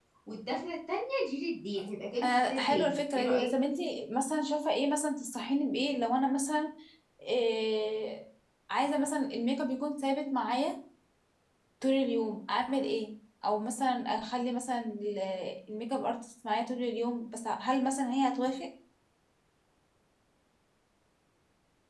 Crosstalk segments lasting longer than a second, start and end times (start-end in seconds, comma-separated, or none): 2.2-3.5